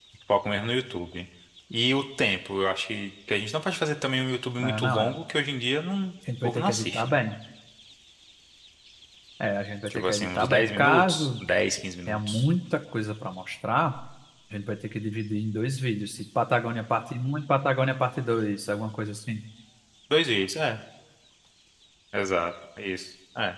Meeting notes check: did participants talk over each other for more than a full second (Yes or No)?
Yes